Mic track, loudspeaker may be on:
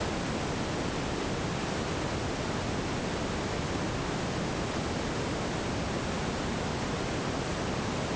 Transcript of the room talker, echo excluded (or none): none